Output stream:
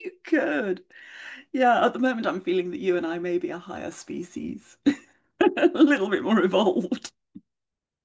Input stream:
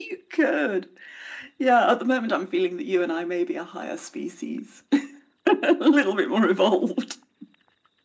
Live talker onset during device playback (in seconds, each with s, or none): none